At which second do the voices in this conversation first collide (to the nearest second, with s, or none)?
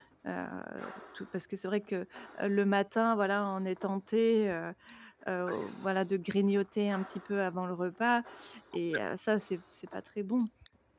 none